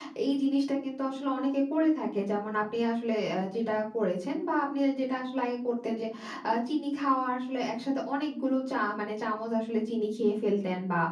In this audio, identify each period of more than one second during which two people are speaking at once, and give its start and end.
none

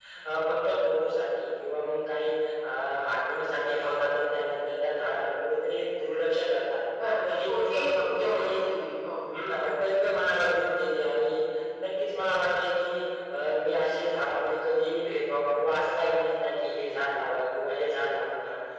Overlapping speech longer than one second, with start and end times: 7.2-8.5

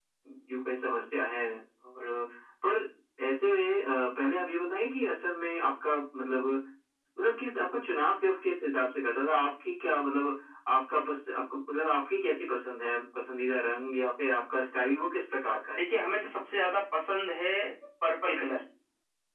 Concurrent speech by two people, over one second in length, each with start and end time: none

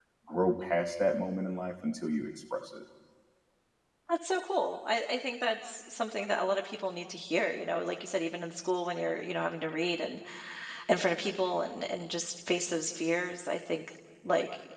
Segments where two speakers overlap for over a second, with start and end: none

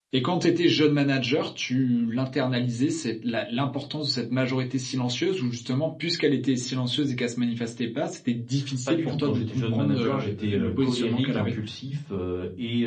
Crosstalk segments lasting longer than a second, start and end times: 8.9-11.6

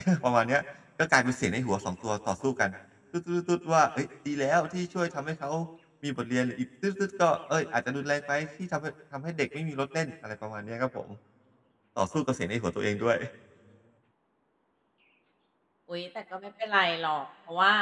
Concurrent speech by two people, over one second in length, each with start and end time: none

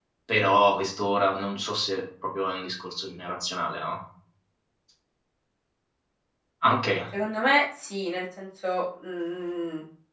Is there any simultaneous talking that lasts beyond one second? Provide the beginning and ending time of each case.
none

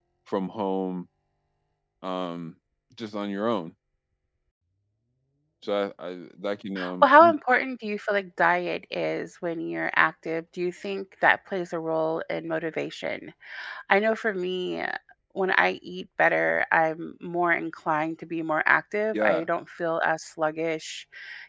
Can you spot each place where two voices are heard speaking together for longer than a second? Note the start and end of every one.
none

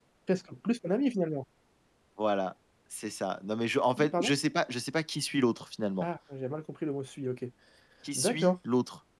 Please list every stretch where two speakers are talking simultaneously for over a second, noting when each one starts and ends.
none

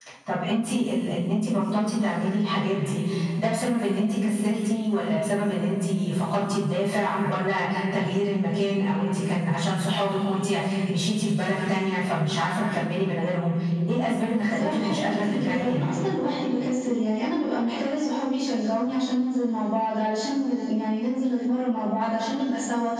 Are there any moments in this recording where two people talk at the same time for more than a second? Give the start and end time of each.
14.4-15.9

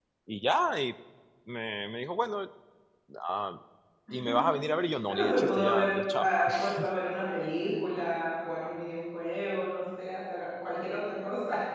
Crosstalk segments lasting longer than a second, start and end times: 5.1-6.3

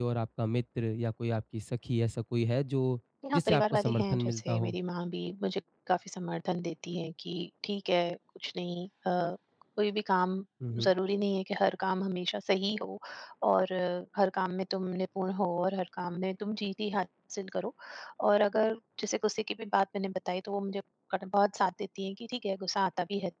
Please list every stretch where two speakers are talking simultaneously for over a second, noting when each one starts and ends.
3.3-4.8

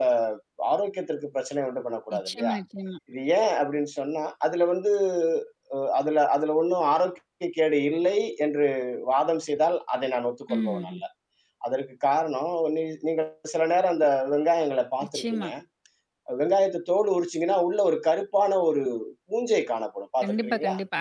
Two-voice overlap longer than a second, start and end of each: none

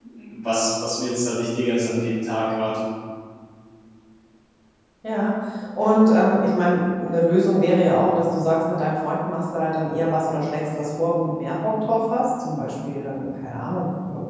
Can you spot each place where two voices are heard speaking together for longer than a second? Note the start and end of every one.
none

